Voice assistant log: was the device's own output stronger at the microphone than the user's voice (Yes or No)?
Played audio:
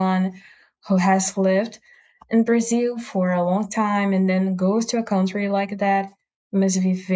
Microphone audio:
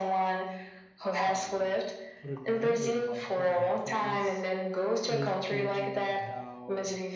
Yes